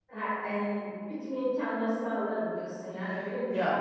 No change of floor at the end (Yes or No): No